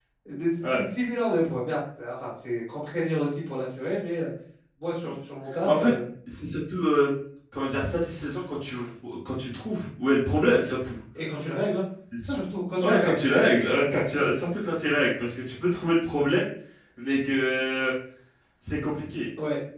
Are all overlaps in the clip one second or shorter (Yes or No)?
Yes